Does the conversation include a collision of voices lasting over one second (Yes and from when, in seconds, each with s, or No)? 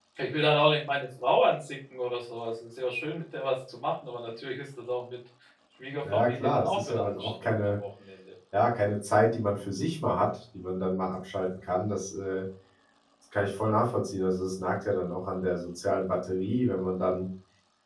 Yes, from 6.0 s